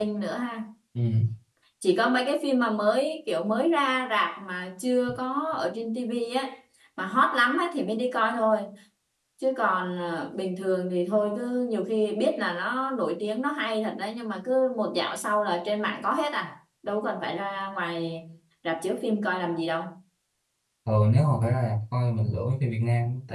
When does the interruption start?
none

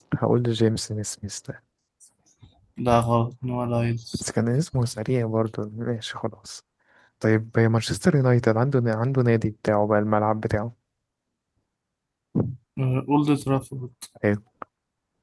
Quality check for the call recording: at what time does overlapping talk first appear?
none

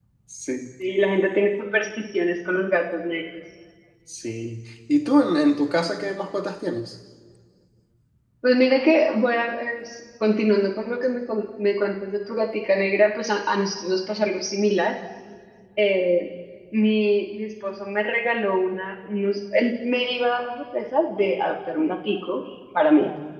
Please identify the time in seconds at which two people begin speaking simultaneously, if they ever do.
none

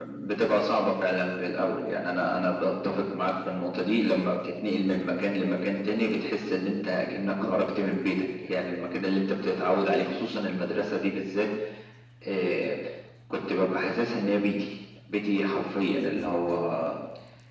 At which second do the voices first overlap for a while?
none

